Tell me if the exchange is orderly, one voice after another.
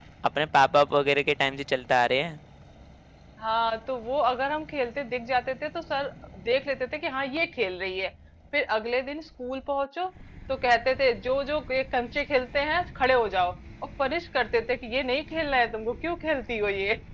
Yes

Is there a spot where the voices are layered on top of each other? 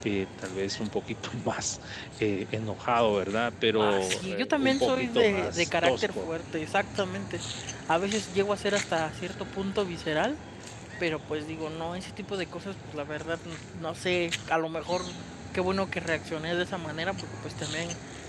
Yes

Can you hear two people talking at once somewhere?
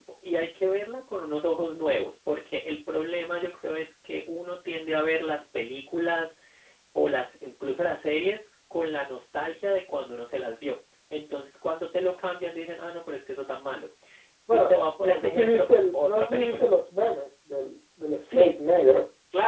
Yes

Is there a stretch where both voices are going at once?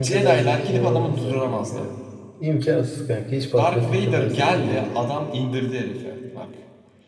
Yes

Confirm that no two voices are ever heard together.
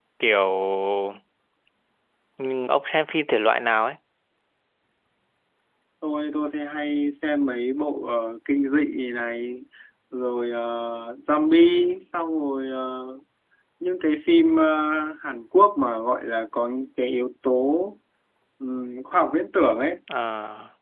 Yes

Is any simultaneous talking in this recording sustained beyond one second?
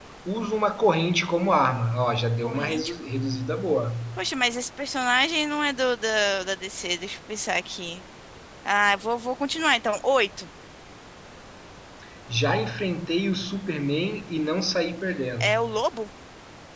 No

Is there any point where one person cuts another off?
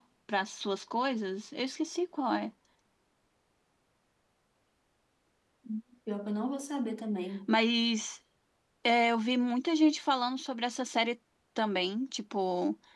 No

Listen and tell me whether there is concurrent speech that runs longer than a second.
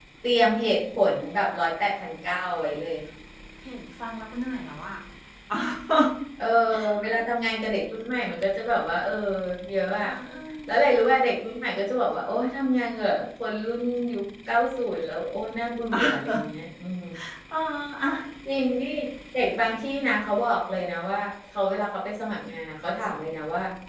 No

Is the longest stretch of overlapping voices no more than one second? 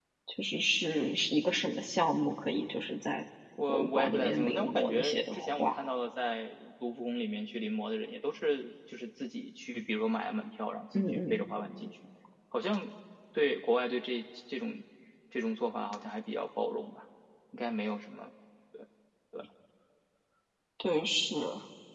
No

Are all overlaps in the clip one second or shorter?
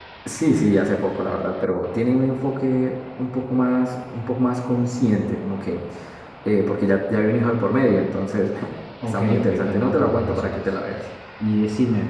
No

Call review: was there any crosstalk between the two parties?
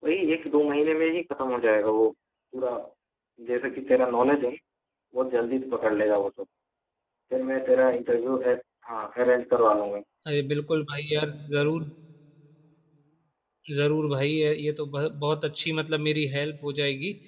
No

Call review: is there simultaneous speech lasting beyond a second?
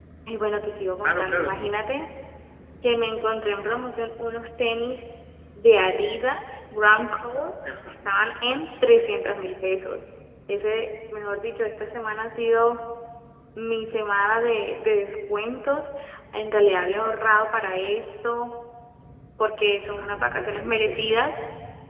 Yes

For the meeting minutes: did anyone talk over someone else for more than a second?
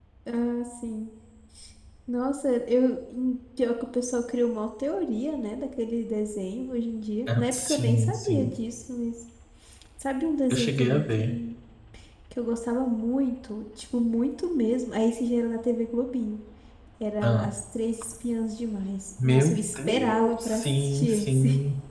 Yes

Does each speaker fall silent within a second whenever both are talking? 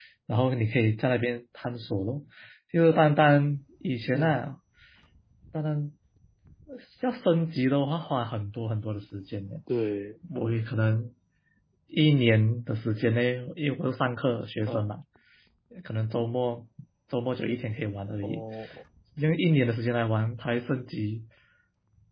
Yes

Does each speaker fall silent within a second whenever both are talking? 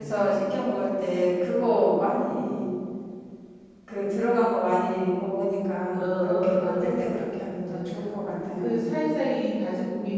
No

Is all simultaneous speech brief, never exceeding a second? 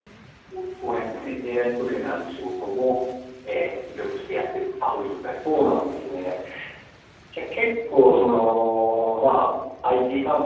Yes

